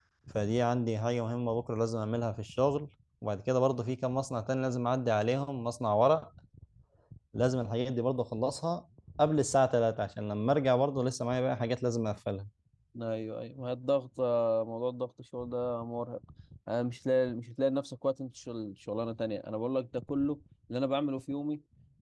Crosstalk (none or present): none